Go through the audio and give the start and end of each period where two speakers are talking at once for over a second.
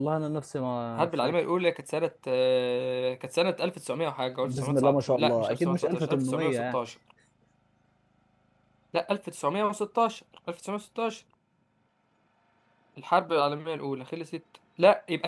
4.4-6.8

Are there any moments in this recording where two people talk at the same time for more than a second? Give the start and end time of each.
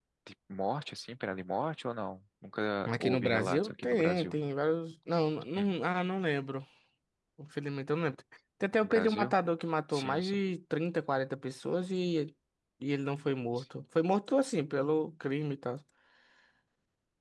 2.9-4.3

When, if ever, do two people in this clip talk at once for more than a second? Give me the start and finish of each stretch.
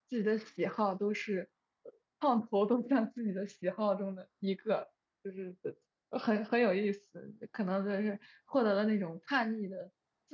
none

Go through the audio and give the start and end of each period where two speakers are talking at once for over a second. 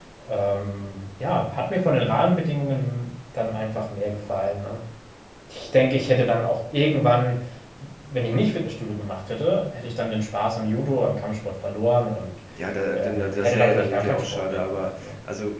12.9-15.1

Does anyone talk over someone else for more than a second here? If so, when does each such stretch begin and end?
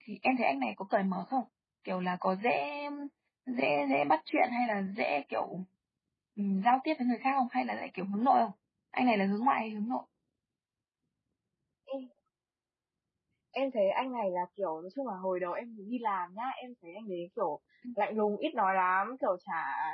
none

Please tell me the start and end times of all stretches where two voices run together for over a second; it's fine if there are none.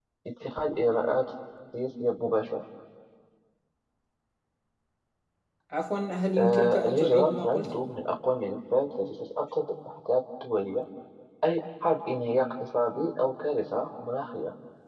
6.4-7.7

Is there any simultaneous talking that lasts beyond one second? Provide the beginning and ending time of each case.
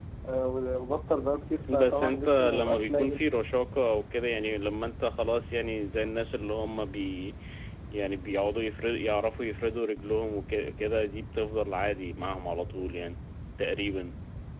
1.7-3.2

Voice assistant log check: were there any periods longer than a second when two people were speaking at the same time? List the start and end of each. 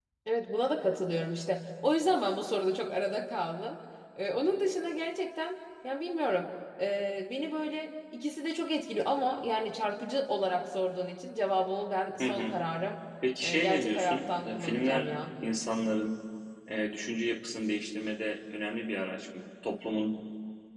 13.4-15.1

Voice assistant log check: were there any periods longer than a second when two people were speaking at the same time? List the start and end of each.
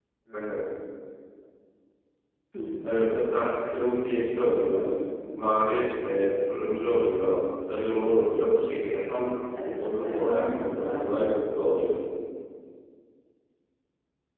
9.8-11.4

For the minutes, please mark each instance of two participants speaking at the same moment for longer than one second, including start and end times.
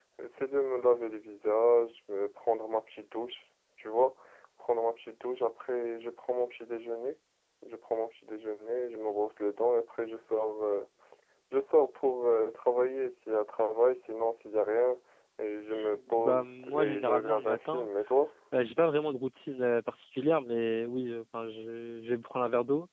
16.2-17.9

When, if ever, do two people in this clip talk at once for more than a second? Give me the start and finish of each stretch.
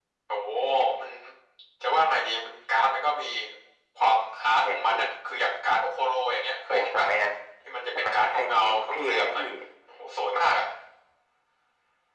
8.0-9.4

